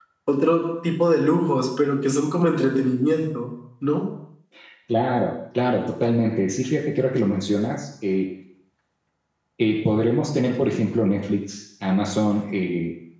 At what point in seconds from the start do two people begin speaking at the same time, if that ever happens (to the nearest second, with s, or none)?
none